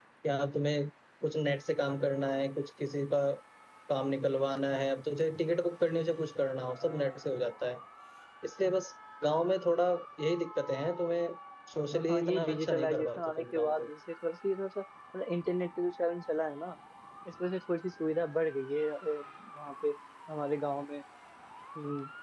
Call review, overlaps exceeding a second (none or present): present